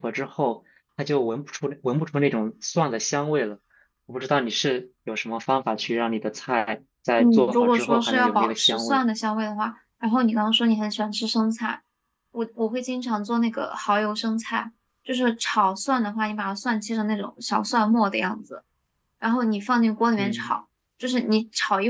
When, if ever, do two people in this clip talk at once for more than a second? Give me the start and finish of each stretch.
7.2-9.0

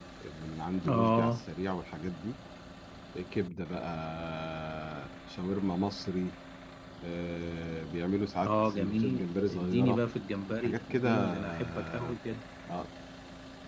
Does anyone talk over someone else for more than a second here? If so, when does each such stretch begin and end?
8.4-10.0, 10.6-12.1

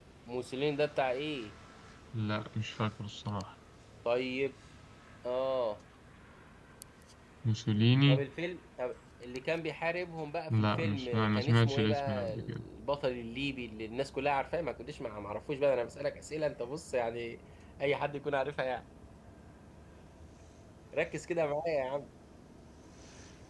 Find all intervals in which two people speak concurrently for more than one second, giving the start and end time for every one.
10.5-12.6

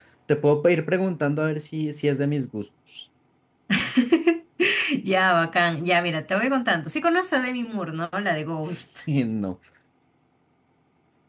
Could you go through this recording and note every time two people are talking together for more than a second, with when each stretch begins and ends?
none

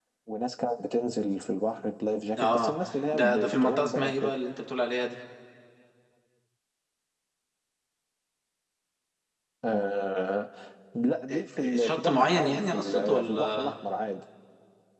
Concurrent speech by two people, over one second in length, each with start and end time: 3.1-4.4, 11.3-13.7

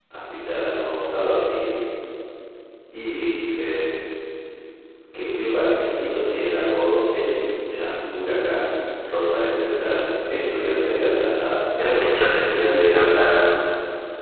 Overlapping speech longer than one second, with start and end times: 11.8-13.1

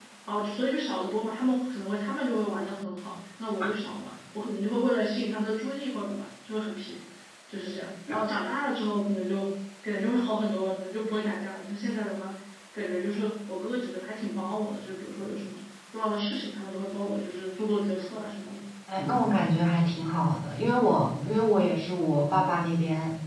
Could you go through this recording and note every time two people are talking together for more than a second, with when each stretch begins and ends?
none

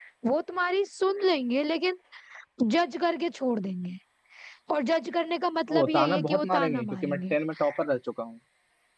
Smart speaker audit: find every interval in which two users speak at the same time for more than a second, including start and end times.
5.7-7.3

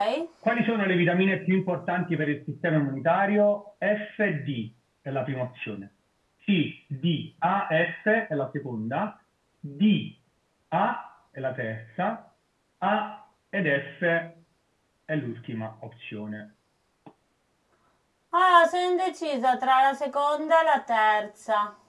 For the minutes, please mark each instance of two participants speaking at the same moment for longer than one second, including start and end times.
none

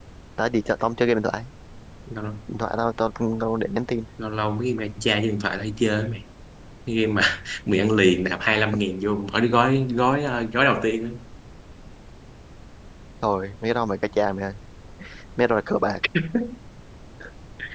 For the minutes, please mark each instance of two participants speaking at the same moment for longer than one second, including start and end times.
none

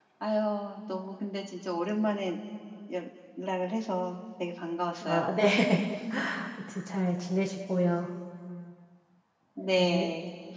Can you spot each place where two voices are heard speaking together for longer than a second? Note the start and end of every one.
none

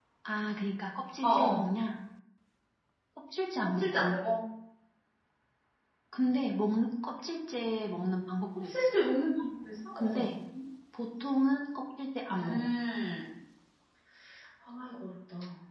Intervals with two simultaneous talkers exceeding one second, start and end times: none

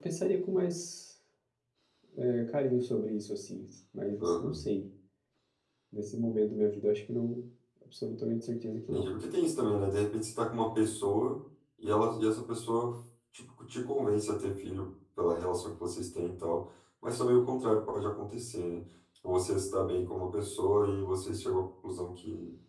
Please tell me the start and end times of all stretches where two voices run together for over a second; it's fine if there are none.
none

